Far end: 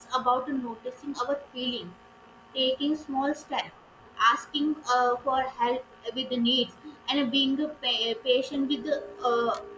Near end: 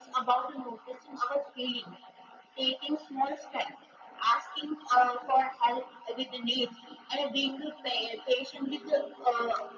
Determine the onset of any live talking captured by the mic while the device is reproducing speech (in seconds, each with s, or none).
none